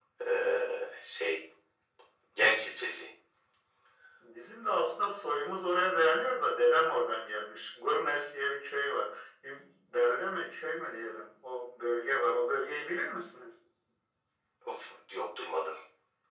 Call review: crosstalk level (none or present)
none